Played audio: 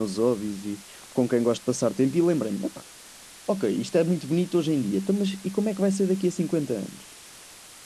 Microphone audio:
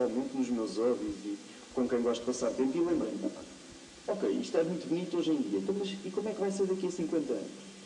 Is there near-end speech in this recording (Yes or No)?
No